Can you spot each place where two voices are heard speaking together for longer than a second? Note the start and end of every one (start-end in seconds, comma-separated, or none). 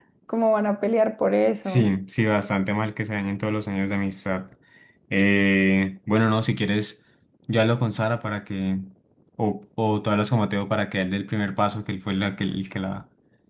none